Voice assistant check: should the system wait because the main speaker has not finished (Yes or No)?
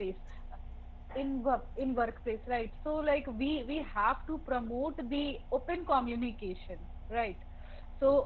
Yes